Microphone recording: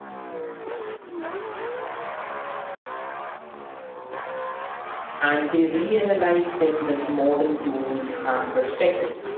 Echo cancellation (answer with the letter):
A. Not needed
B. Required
A